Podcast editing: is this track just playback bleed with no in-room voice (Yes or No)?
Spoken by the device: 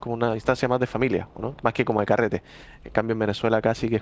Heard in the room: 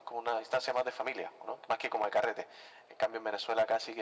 Yes